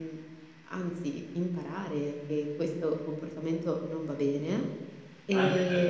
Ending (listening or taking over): taking over